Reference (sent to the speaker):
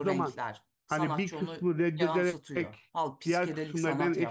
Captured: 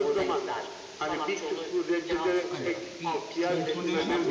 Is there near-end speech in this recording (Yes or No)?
Yes